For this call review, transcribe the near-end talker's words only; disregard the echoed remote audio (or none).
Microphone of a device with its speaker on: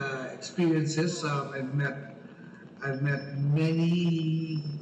none